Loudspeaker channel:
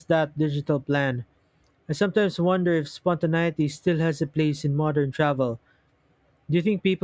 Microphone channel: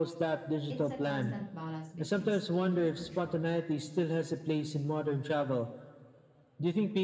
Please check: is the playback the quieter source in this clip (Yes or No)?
No